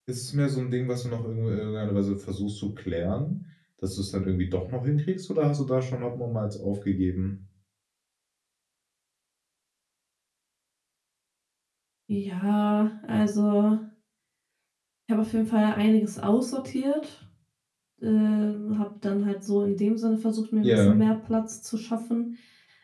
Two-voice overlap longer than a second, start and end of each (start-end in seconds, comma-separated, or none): none